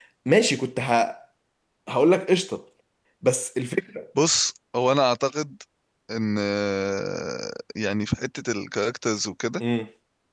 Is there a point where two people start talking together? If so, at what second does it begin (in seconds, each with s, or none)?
none